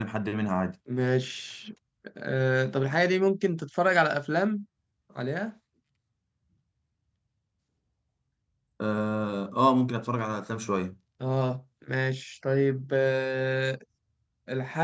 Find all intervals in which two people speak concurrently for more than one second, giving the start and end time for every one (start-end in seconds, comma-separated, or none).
none